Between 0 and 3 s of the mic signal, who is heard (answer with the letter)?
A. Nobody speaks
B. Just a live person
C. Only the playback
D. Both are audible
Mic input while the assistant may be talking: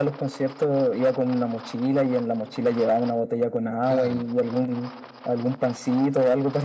C